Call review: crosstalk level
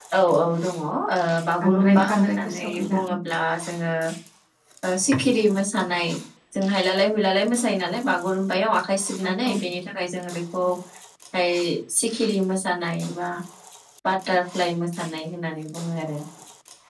present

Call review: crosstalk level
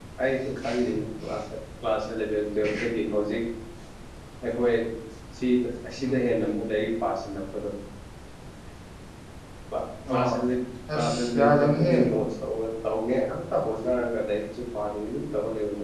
present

